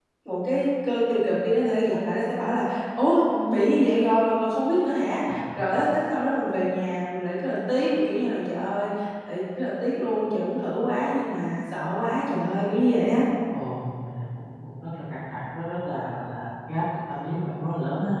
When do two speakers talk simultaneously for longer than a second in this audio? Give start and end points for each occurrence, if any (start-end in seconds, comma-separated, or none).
none